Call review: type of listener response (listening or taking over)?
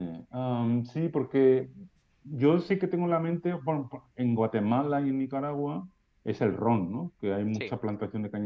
listening